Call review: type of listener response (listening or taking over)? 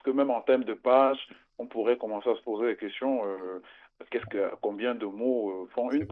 taking over